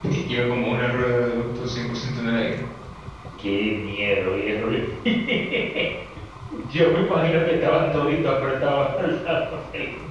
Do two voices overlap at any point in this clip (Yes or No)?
No